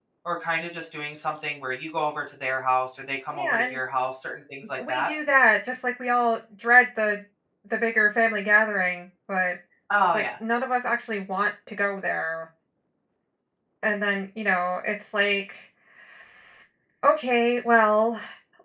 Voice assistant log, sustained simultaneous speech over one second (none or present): none